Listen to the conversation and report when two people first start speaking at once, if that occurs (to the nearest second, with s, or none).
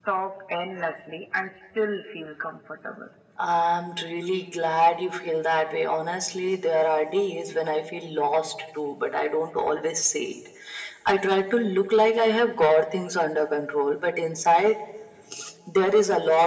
none